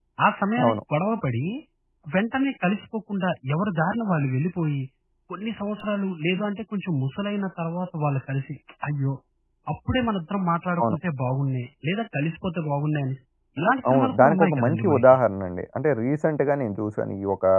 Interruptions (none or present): present